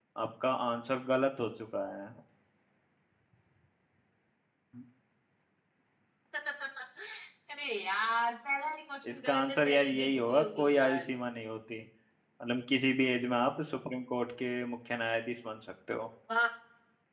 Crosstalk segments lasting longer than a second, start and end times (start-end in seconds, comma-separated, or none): 9.1-11.0